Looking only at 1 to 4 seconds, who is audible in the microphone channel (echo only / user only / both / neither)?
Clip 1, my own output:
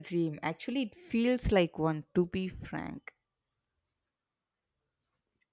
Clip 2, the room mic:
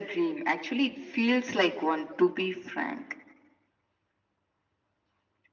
echo only